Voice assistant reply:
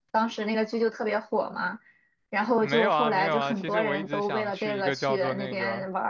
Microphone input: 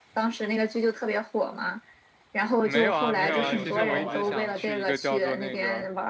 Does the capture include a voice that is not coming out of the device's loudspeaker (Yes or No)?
Yes